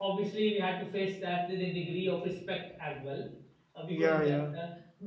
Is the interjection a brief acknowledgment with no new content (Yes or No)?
Yes